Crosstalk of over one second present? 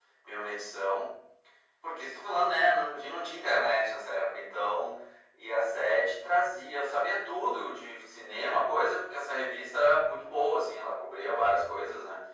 No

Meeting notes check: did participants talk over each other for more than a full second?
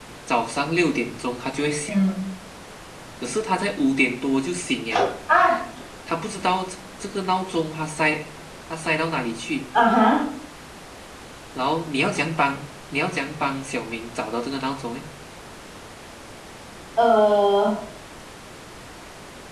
No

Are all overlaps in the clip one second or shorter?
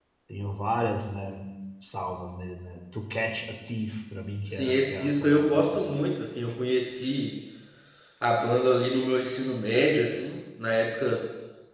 No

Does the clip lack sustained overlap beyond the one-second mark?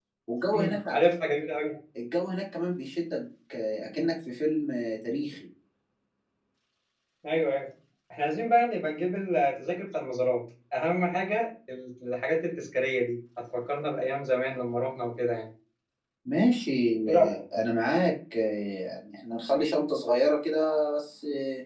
Yes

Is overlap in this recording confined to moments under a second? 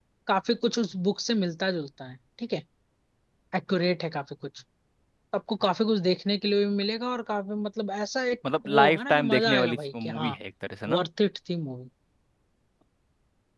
No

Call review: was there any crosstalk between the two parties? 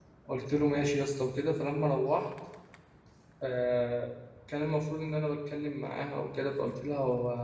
No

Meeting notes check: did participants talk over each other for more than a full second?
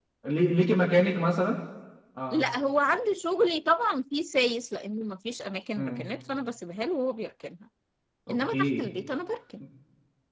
No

